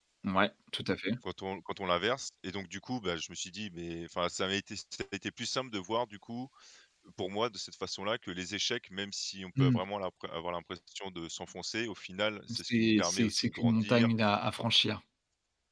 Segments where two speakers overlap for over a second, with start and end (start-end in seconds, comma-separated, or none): 12.5-14.1